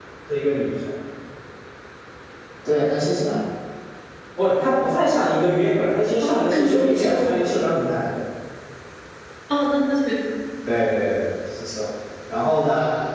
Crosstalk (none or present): present